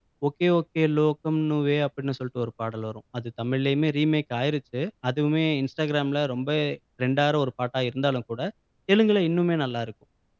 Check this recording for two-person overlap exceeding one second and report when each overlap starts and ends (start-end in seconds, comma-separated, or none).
none